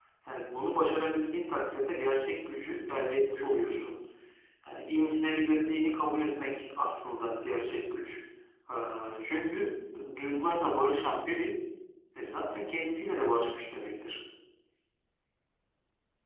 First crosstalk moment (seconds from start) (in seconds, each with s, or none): none